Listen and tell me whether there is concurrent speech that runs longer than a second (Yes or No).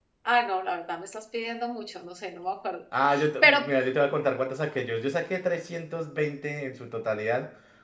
No